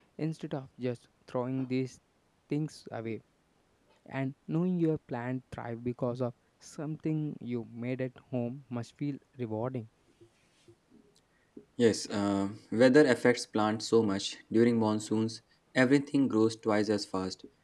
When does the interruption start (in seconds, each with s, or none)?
none